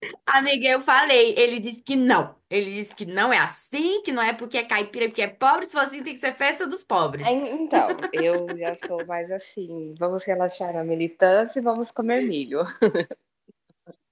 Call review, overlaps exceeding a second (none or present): none